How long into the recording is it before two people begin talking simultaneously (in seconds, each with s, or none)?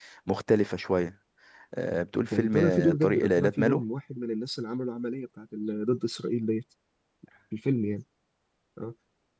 2.3 s